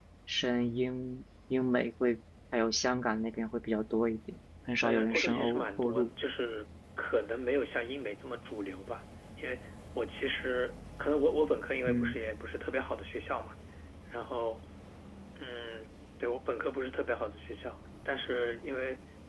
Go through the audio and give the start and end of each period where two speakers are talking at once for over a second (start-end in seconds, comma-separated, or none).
4.8-6.1